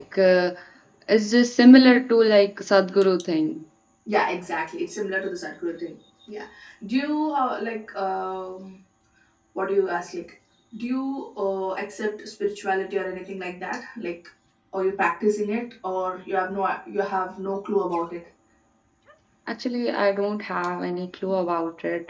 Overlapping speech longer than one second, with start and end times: none

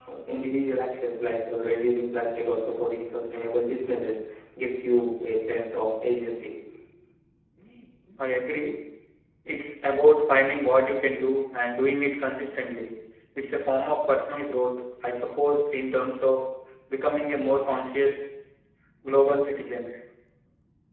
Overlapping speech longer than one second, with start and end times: none

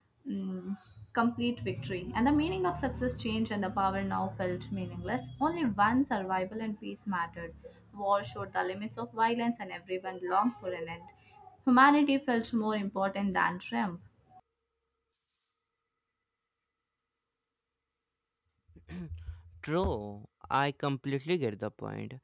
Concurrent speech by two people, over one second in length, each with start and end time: none

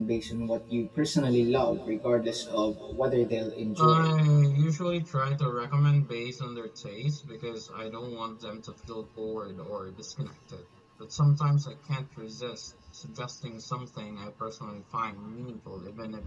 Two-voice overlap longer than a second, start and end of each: none

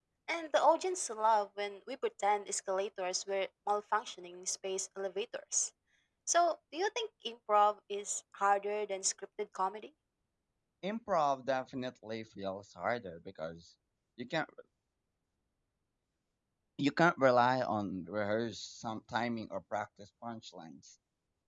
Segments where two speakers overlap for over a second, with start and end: none

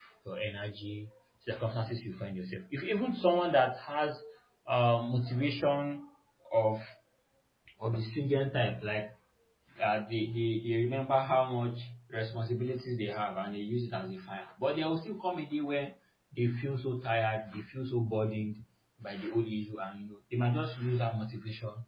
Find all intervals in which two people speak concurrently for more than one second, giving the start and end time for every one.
none

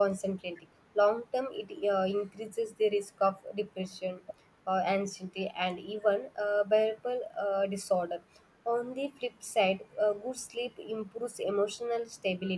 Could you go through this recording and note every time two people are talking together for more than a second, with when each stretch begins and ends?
none

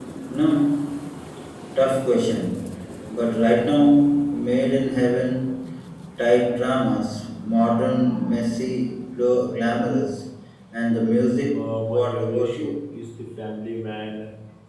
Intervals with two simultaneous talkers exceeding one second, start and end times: 11.5-12.8

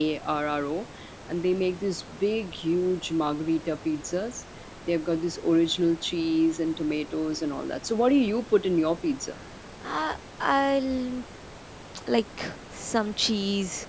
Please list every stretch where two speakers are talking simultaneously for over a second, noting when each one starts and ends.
none

